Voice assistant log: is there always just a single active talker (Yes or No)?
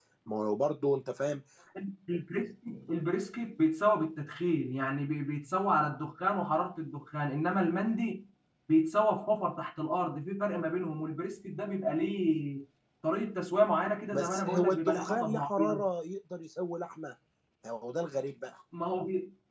No